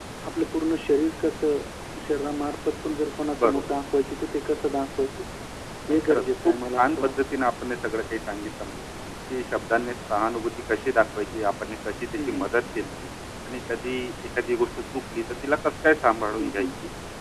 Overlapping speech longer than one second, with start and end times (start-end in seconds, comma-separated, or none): 5.9-7.1